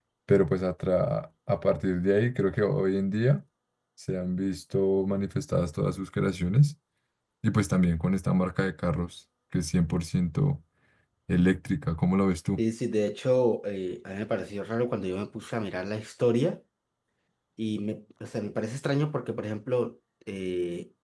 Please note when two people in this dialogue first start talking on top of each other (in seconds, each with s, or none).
none